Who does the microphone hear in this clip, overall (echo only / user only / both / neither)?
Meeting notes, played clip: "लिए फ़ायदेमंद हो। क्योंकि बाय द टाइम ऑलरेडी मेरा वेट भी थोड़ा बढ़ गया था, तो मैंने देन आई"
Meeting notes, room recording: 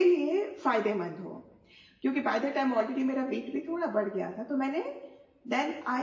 echo only